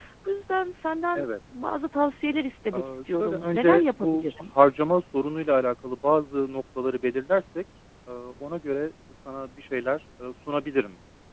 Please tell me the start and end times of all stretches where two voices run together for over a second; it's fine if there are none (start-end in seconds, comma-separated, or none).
2.7-4.2